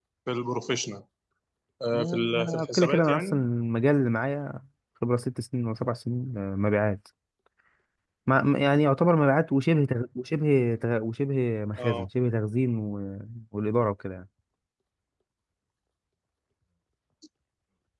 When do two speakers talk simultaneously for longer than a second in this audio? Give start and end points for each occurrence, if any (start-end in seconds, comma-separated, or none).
1.9-3.5